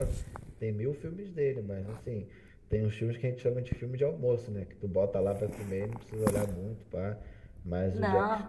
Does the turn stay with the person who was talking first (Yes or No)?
Yes